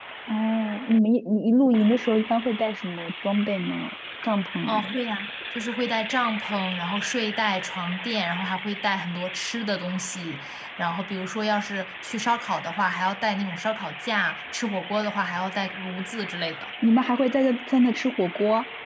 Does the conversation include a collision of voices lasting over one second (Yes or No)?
No